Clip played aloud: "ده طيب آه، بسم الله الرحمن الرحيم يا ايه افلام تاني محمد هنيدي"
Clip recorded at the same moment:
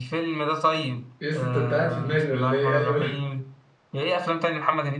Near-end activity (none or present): present